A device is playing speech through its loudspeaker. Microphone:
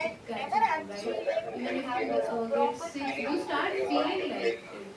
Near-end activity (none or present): present